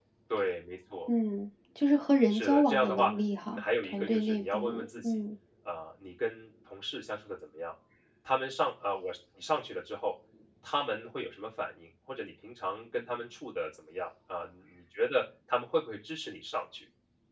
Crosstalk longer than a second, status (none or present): present